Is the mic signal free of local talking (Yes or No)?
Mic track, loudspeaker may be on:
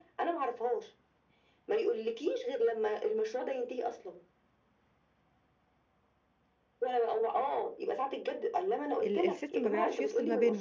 No